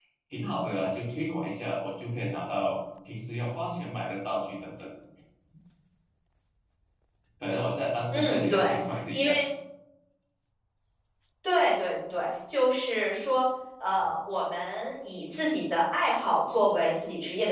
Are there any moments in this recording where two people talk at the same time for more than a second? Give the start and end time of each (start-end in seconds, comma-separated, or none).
8.1-9.4